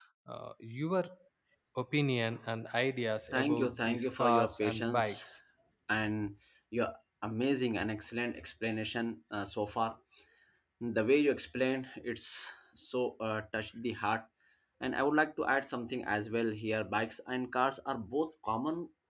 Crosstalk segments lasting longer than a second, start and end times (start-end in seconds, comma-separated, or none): 3.3-5.2